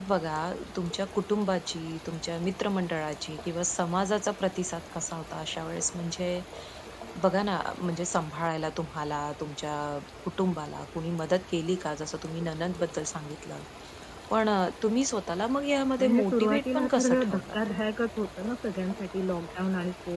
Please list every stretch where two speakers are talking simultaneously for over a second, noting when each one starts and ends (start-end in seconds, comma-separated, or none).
16.0-17.6